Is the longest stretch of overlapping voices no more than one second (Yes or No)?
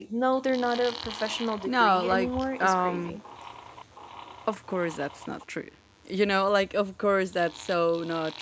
No